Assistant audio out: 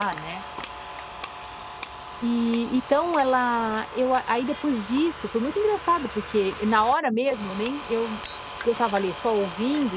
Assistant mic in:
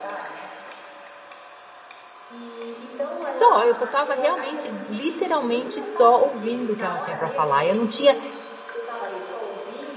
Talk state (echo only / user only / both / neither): both